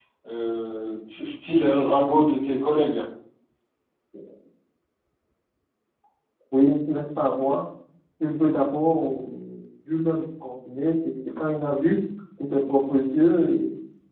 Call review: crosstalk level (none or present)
none